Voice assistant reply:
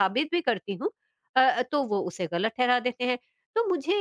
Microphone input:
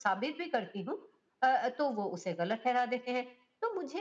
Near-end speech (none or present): none